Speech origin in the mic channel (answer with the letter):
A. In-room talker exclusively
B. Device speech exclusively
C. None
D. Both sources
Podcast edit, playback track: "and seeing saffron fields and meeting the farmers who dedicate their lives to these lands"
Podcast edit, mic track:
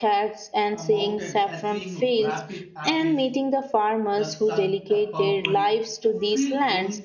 D